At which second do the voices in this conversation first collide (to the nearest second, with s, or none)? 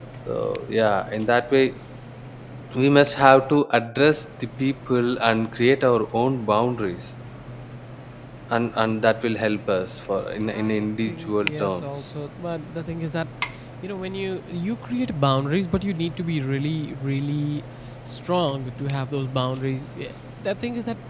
11 s